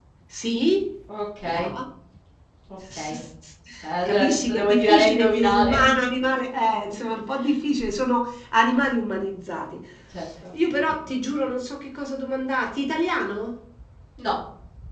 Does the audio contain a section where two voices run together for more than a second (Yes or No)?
Yes